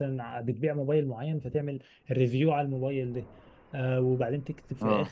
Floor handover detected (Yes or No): No